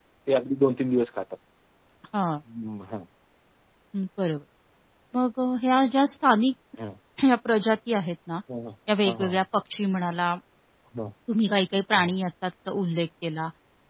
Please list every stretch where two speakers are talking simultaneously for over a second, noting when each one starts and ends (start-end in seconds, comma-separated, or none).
none